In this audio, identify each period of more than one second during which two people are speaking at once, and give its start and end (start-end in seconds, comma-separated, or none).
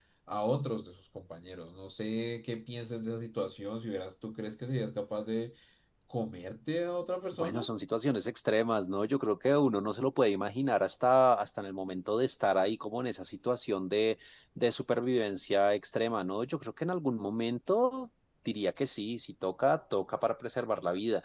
none